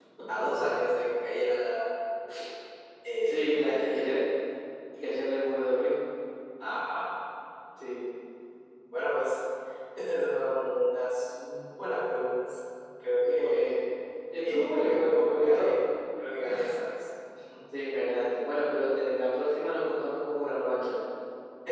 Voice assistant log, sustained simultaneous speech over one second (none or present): present